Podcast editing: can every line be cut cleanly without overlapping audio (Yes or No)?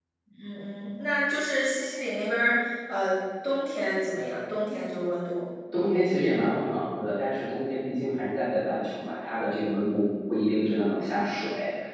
Yes